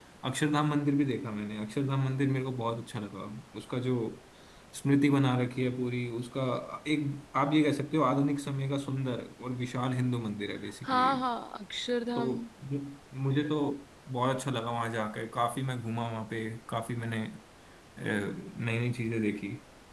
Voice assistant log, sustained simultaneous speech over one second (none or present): none